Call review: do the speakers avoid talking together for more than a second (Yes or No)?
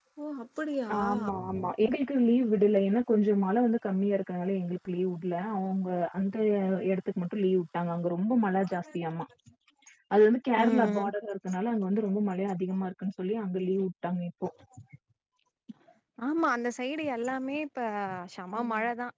Yes